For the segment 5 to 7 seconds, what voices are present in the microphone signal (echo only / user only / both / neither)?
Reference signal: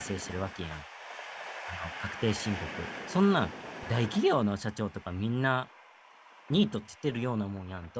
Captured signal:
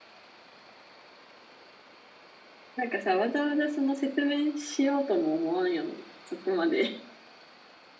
user only